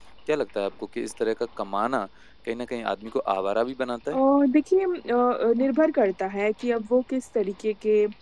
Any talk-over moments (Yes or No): No